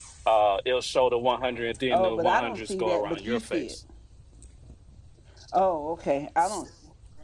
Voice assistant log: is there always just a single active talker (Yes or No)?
No